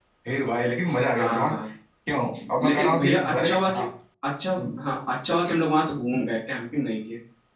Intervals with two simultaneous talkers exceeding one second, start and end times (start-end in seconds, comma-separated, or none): 2.6-3.8